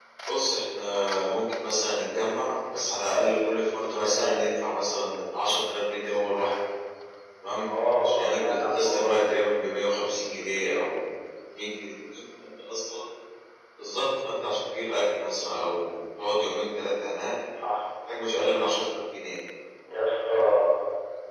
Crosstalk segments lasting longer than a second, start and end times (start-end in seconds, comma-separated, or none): 8.1-9.2